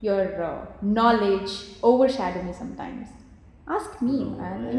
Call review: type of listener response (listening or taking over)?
taking over